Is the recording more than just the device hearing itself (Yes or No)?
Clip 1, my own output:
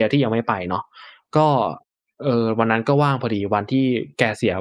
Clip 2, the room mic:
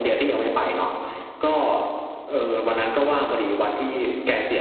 No